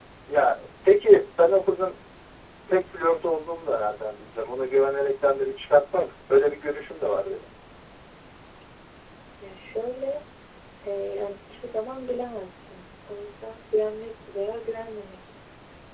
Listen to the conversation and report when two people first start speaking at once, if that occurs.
none

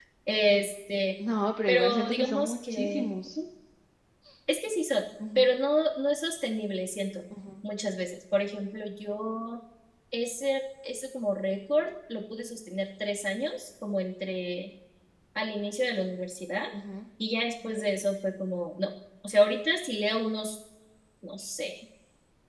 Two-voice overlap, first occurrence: 1.7 s

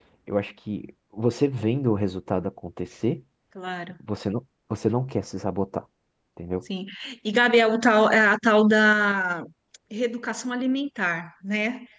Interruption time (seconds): none

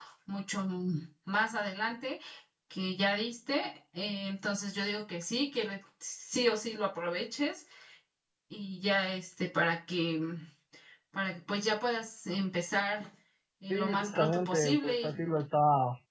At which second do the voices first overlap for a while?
13.7 s

